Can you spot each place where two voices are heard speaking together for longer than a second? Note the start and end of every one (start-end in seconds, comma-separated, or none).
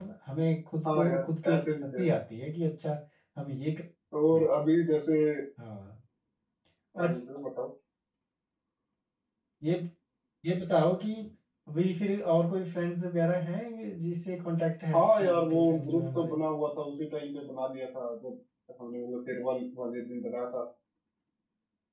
0.9-2.1, 14.9-16.4